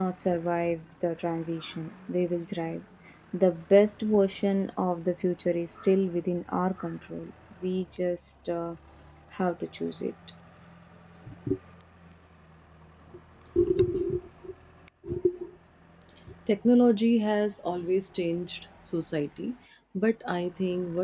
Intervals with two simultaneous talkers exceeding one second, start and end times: none

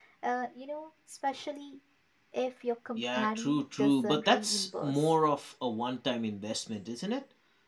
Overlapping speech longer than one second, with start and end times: 3.0-5.1

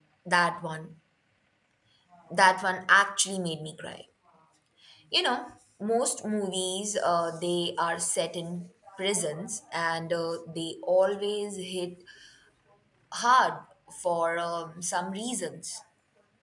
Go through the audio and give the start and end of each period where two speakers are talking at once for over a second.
none

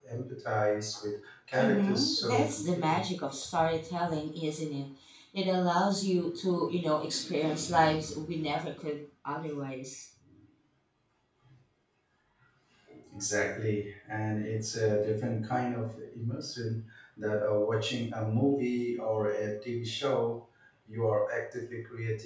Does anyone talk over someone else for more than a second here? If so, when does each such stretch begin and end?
1.6-3.0

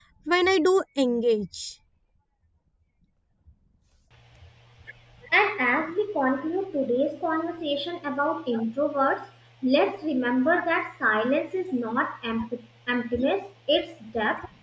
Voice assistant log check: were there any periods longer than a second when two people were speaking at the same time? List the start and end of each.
none

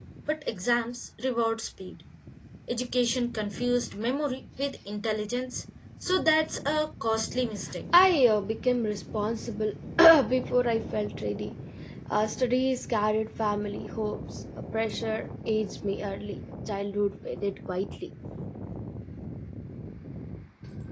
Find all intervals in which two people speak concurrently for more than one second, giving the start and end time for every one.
none

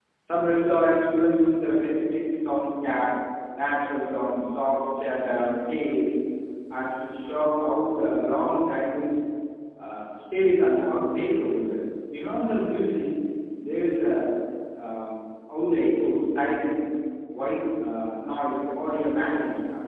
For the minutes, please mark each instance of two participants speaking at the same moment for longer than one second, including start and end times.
none

